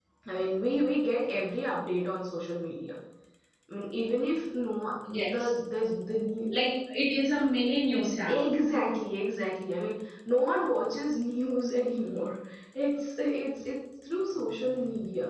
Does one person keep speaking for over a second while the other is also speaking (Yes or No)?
No